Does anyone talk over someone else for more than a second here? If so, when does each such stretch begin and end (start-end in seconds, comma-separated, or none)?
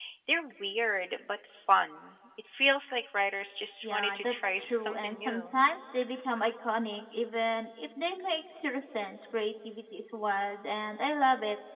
3.8-5.5